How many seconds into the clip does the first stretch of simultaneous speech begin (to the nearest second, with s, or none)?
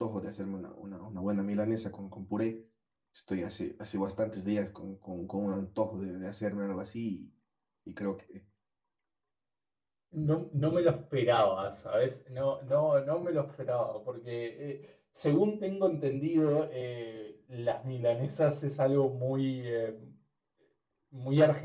none